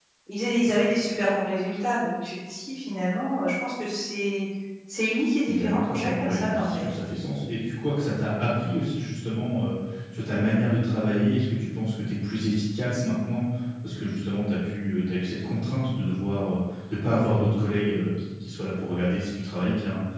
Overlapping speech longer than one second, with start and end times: 5.5-6.8

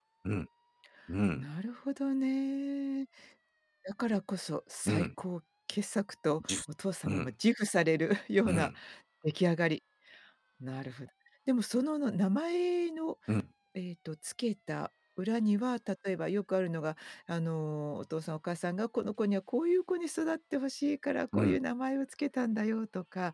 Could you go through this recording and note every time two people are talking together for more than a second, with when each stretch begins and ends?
none

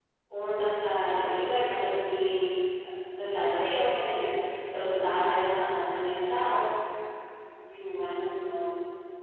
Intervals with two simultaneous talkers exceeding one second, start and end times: none

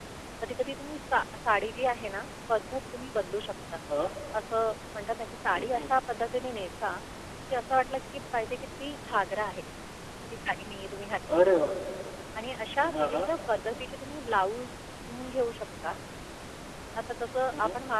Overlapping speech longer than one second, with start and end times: none

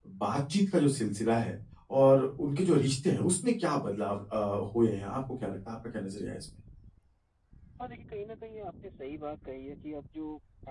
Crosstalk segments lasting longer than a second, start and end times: none

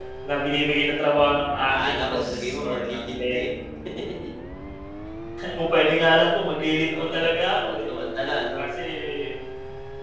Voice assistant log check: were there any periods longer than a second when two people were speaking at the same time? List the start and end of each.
1.7-3.4

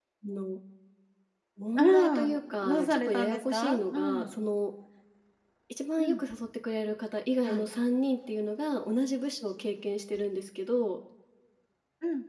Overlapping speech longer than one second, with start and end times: 1.8-4.3

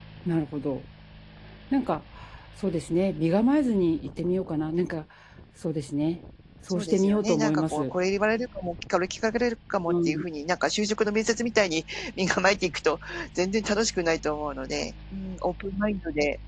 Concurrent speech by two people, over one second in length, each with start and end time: 6.7-7.9

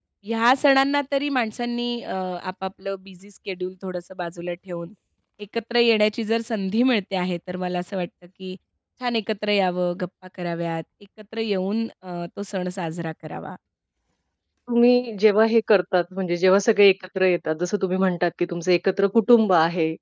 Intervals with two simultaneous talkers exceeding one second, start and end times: none

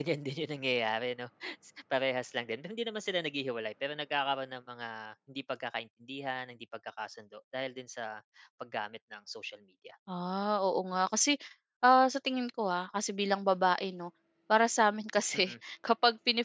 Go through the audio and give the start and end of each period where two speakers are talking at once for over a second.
none

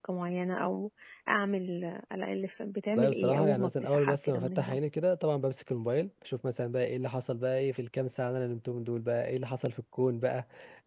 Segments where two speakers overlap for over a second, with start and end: 3.0-4.8

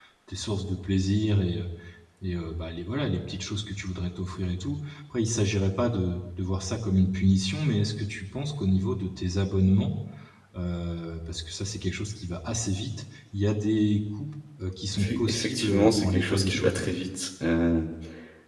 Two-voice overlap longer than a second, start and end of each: 14.9-16.8

